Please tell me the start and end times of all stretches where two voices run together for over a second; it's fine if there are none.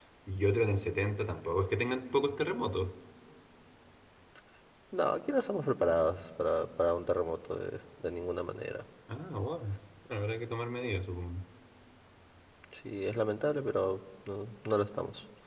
none

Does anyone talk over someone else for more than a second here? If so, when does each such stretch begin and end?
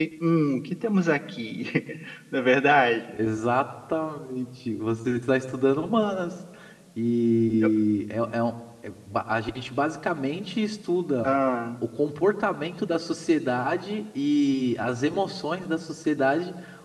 none

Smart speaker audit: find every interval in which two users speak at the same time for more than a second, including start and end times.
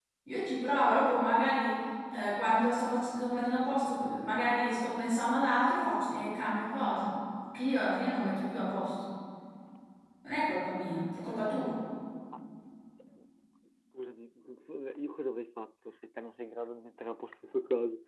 none

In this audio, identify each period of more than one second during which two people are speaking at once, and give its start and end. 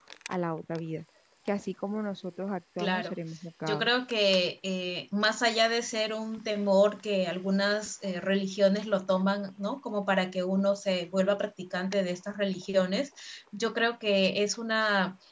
none

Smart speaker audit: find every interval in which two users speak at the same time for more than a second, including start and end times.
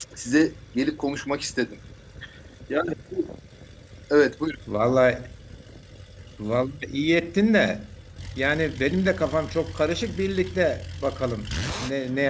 none

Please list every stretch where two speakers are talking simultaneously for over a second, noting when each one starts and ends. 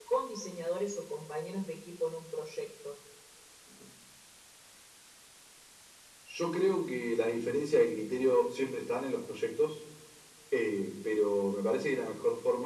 none

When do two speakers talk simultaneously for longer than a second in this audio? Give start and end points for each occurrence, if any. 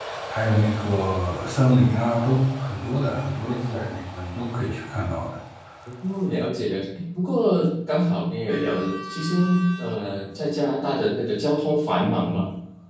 none

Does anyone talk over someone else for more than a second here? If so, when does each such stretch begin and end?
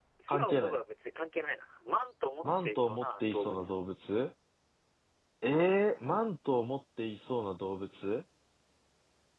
2.4-3.7

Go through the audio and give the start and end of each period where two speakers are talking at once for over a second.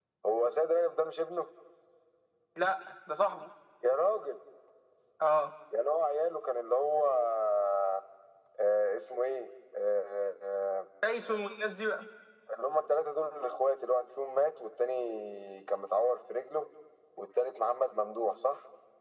none

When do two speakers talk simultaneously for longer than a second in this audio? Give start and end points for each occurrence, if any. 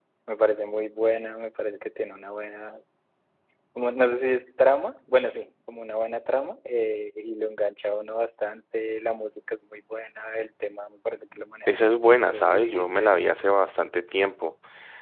11.7-13.2

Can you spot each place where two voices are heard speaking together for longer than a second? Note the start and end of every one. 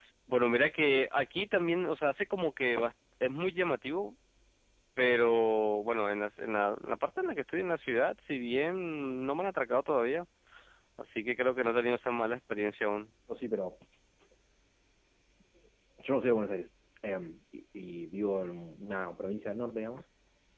none

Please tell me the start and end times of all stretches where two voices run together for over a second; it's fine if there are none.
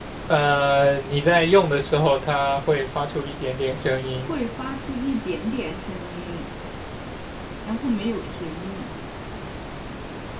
none

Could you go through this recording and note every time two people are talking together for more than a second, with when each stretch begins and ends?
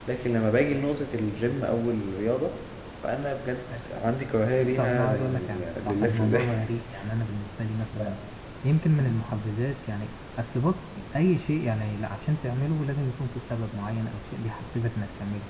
4.8-6.5

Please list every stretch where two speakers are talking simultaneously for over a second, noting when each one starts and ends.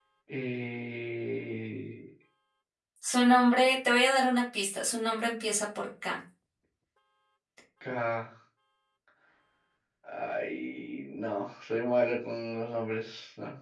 none

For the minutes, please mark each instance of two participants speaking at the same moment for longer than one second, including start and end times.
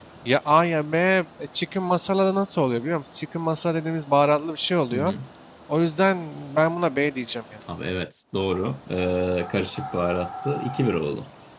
none

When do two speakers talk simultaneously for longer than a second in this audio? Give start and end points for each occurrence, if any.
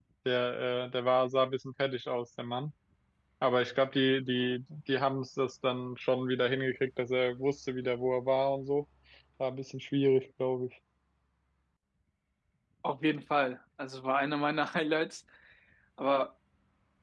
none

